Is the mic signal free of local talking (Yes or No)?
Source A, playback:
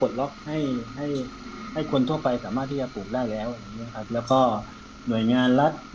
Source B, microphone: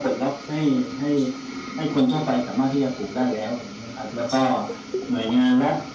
Yes